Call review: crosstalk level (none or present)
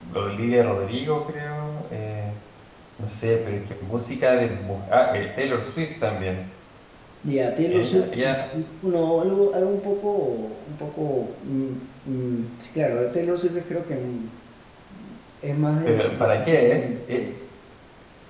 present